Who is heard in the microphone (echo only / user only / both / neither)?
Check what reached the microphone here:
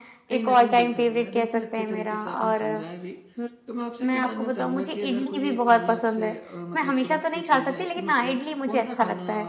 both